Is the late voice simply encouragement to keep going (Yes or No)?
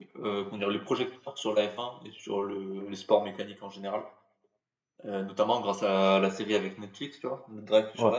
Yes